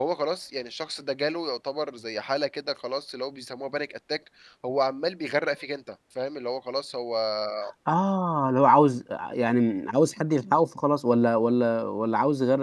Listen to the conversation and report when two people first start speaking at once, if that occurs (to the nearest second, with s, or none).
none